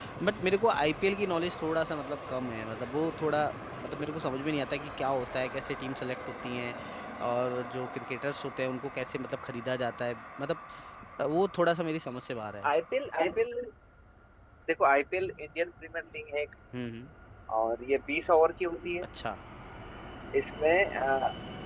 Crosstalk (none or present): none